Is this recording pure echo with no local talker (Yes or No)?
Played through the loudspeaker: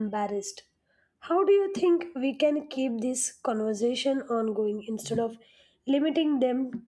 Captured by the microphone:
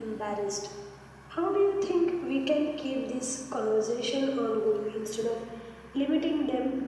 Yes